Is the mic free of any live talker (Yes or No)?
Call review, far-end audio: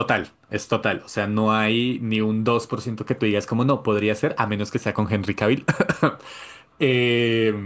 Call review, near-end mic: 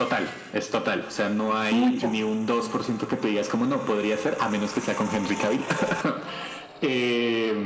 No